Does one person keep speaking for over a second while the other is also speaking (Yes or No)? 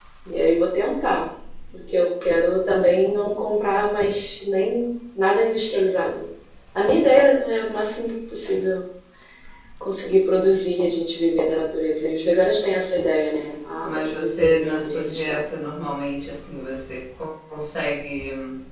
Yes